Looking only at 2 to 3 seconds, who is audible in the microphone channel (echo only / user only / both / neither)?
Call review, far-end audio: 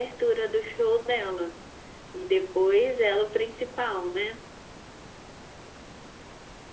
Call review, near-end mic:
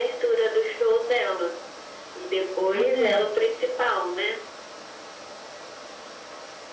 both